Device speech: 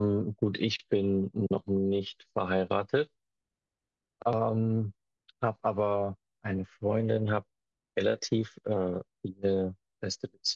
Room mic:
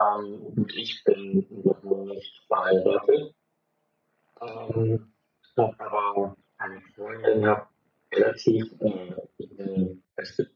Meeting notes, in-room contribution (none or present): none